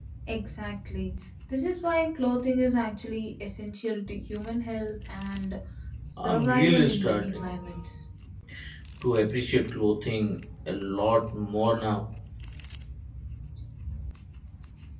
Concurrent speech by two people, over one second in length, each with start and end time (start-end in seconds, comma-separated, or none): 6.2-7.5